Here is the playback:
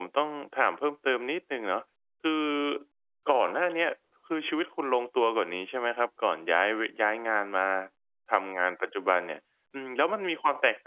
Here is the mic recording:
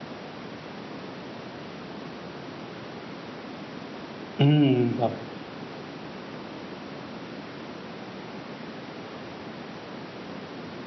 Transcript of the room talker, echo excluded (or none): อืมครับ